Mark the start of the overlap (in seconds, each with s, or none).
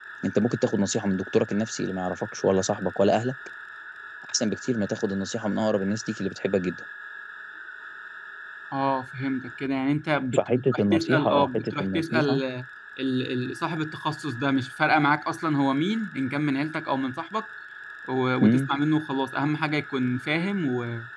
10.3 s